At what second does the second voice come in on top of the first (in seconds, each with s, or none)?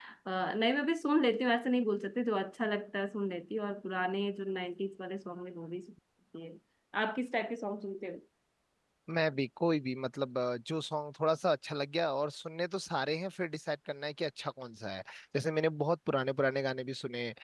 none